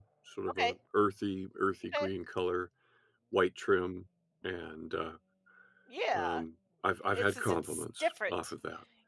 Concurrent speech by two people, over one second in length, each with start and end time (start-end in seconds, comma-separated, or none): 7.1-8.5